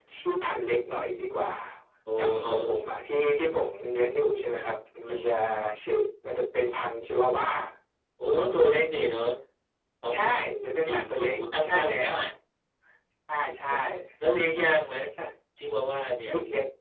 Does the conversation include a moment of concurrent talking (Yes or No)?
Yes